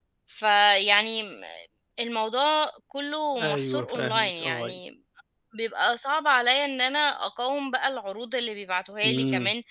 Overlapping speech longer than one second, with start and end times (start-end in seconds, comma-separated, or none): 3.4-4.7